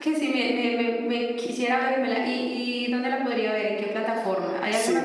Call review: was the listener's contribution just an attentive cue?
No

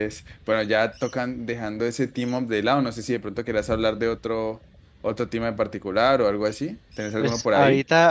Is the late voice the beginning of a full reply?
Yes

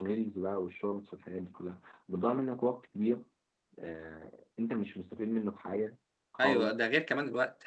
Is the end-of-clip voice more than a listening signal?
Yes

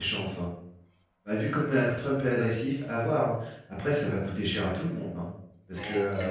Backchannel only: No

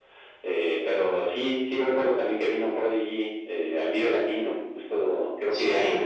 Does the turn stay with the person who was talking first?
Yes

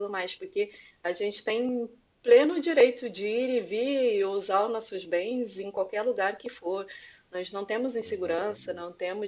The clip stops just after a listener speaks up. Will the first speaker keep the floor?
Yes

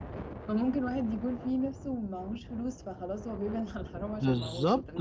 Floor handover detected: Yes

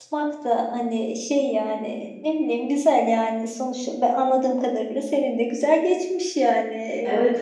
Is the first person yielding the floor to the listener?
Yes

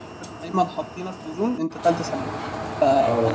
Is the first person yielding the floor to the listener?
Yes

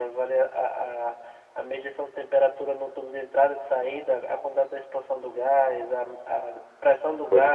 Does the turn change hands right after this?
No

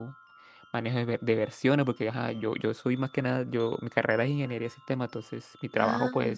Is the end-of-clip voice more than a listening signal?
No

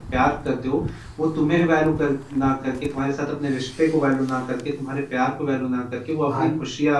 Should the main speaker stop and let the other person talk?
No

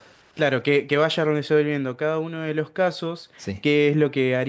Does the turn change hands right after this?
No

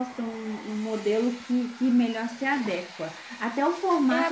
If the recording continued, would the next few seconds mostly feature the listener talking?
Yes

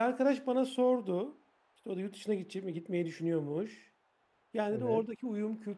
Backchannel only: Yes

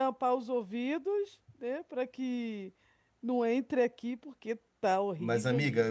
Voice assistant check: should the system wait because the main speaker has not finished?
No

